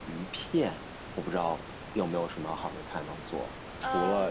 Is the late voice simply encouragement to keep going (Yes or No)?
Yes